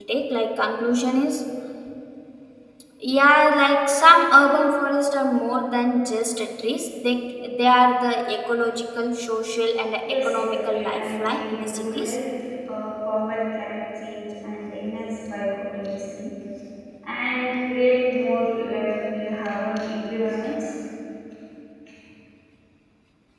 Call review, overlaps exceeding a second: present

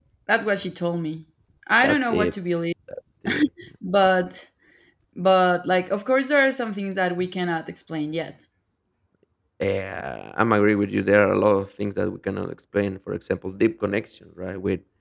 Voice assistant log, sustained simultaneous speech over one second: none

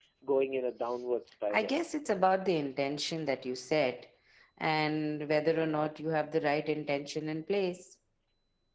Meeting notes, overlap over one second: none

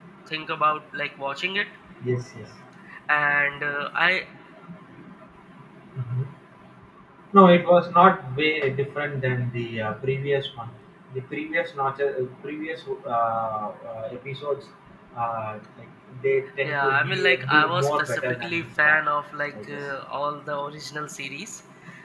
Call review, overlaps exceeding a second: present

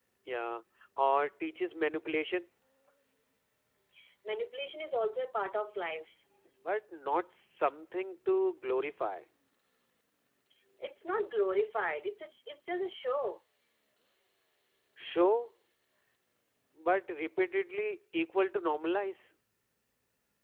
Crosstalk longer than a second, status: none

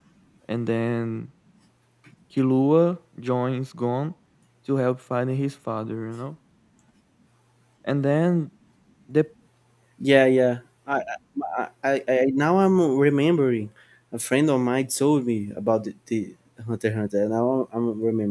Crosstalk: none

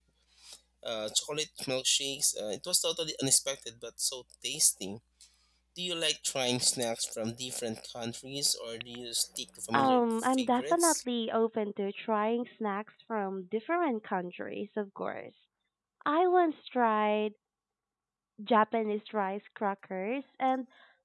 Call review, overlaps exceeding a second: present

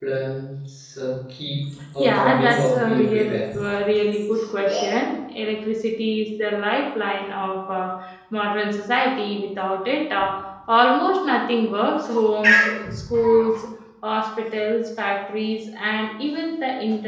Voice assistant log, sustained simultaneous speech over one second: present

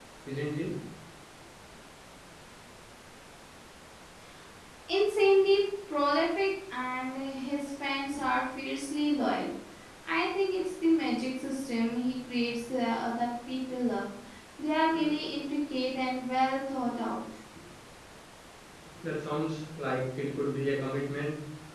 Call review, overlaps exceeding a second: none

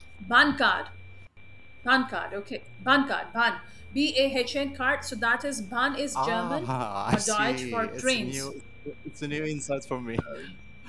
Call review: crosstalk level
present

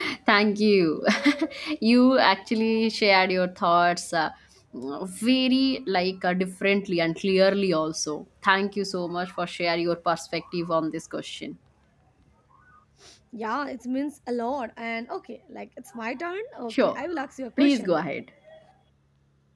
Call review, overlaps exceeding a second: none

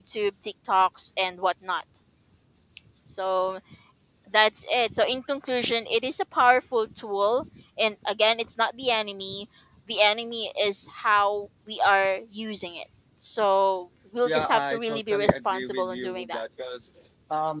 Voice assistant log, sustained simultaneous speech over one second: present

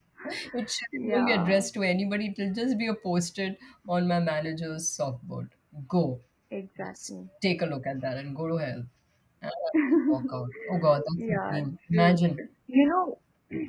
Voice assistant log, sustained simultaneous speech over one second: present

